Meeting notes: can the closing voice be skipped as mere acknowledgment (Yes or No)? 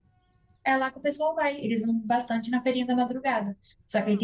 Yes